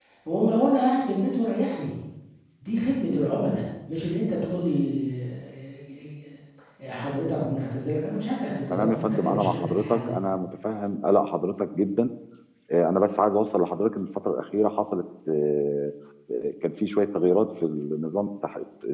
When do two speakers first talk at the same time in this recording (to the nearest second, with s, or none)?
9 s